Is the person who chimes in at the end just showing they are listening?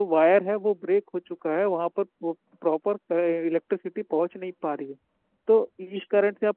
Yes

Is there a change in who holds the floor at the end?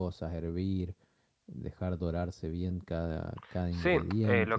Yes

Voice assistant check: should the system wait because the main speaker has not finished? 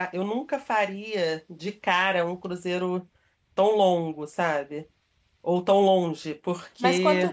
No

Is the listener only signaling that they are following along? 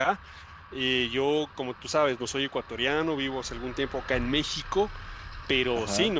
Yes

